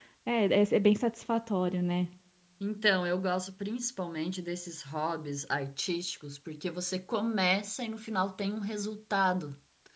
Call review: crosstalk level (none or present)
none